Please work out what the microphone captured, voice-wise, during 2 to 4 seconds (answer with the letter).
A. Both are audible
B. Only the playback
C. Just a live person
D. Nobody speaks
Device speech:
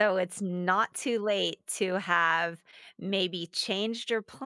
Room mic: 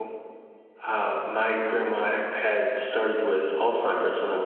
C